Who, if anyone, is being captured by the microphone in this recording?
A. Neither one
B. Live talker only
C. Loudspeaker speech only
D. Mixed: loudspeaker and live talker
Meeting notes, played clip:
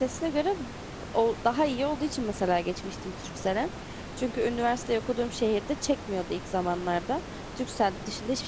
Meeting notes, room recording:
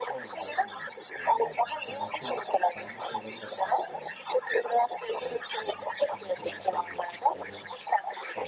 D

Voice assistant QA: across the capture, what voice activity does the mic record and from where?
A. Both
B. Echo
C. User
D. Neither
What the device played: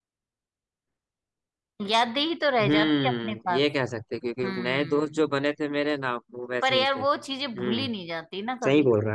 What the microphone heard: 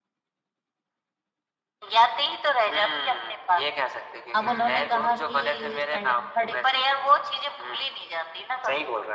A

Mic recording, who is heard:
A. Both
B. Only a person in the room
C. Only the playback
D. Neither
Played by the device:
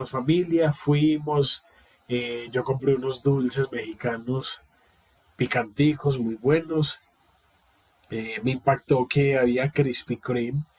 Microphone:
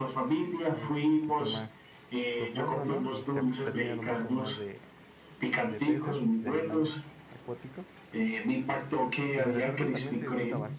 A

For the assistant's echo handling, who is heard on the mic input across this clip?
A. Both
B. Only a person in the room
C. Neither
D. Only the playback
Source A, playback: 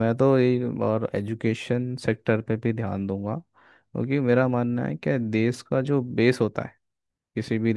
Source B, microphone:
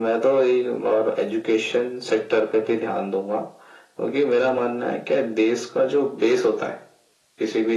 D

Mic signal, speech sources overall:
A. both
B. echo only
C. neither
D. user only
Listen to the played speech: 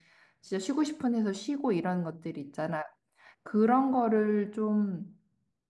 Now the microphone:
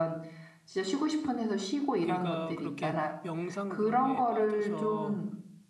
A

